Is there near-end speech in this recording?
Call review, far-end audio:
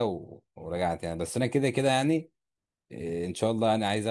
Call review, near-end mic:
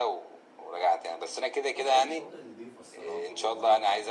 Yes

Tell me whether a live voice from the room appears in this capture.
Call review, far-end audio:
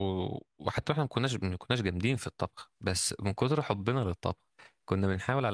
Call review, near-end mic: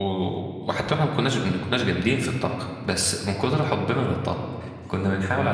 No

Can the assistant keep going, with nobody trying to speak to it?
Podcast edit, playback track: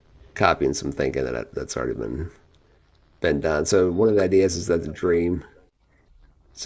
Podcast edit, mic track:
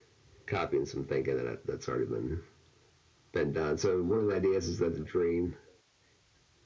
Yes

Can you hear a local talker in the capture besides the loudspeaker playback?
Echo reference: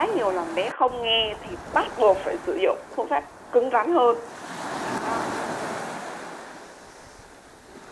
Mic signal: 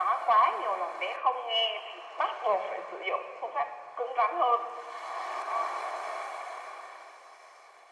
No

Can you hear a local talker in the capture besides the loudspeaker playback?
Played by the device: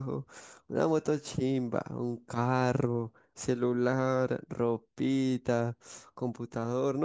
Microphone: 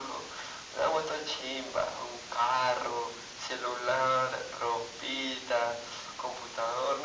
No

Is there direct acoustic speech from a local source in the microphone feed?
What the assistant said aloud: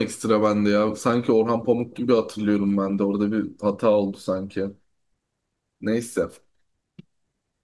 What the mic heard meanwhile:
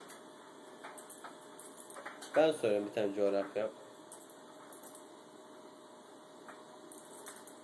Yes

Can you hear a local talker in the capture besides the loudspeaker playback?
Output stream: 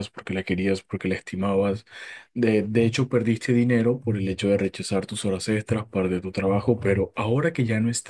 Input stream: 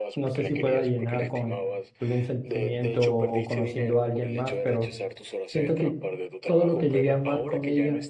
Yes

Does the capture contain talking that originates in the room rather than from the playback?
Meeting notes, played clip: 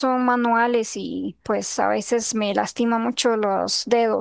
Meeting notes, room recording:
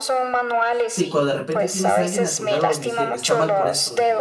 Yes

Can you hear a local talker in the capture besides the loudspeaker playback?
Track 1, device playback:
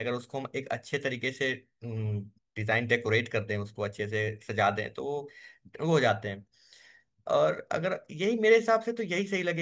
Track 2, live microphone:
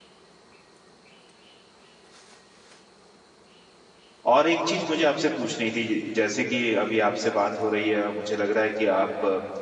Yes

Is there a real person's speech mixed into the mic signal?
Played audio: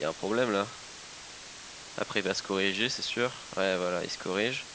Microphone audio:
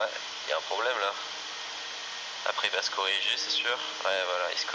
No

